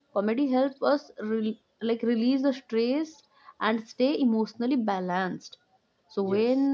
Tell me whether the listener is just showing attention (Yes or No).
Yes